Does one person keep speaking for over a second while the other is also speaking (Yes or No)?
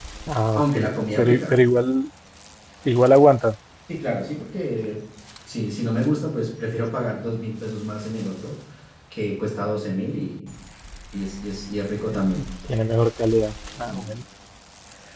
No